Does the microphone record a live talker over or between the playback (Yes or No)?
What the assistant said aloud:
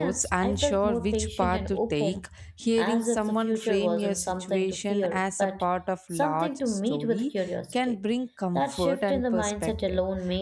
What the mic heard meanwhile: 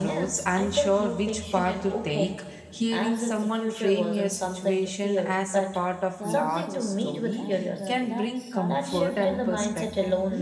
Yes